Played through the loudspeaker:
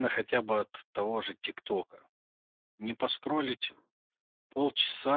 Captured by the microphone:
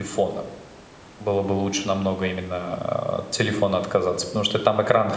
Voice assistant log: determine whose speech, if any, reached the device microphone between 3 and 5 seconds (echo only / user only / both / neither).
user only